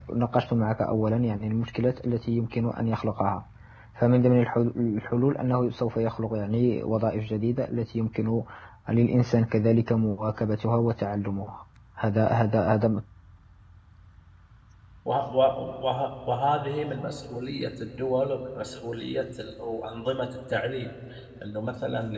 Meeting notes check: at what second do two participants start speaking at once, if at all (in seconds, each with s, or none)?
none